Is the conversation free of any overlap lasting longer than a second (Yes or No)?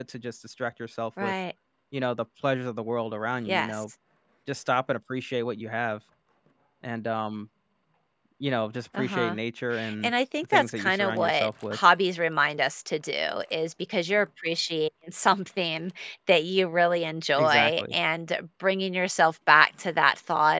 No